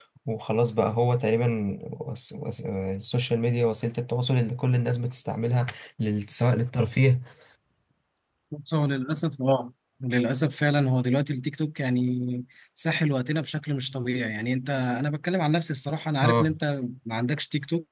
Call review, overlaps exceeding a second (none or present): none